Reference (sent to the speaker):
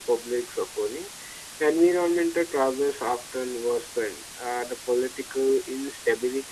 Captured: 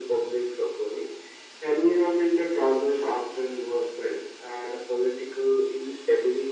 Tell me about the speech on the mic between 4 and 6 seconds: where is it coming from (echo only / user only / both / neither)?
echo only